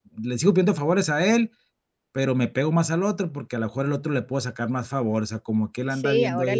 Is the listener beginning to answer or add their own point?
Yes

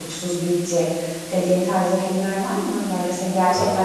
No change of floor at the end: Yes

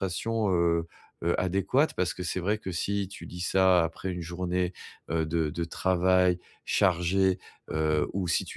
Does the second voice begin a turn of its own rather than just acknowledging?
No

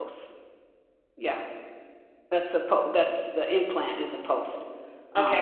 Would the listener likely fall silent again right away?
No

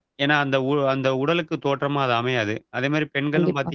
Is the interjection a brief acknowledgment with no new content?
Yes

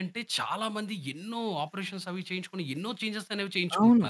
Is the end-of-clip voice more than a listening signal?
Yes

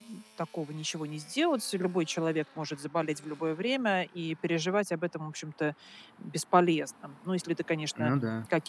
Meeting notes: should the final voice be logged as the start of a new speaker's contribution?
No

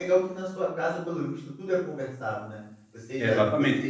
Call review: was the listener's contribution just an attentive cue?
No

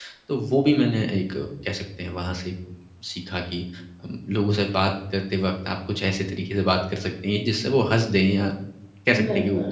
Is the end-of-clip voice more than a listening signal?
Yes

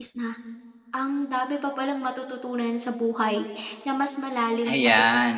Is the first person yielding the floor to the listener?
No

